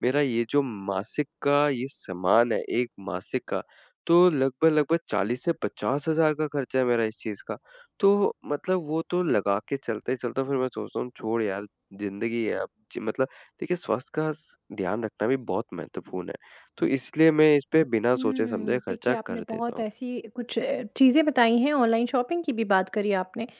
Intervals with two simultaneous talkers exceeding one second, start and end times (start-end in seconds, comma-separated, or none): 18.1-19.8